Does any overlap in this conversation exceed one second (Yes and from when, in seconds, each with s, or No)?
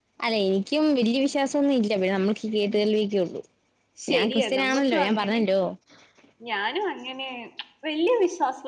Yes, from 4.2 s